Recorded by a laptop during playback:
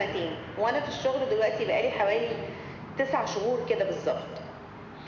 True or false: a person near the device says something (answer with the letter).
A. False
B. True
A